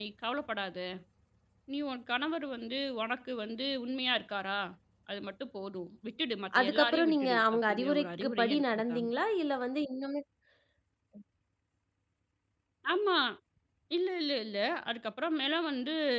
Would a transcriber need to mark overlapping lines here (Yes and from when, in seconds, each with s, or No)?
Yes, from 6.5 s